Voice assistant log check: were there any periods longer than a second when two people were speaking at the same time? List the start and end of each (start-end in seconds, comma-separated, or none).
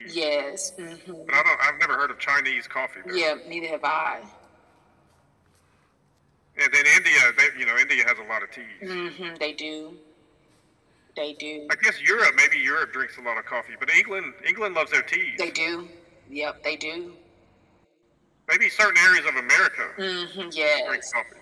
none